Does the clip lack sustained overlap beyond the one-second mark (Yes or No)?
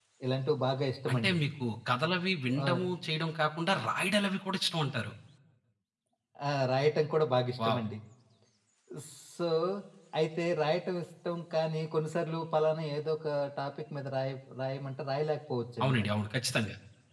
Yes